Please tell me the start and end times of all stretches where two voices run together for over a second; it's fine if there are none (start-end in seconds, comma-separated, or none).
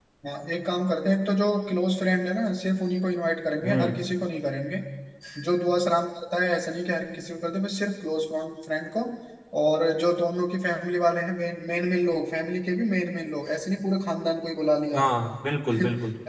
none